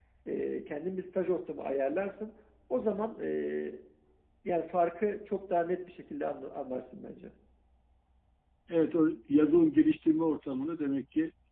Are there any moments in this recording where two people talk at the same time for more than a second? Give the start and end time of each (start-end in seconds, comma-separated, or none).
none